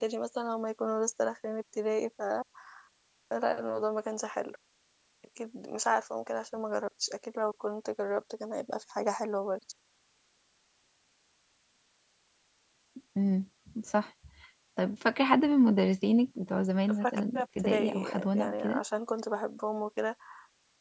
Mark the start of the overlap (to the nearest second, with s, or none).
17 s